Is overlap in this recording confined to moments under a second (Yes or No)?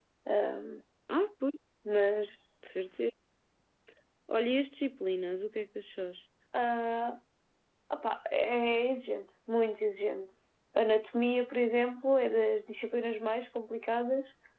Yes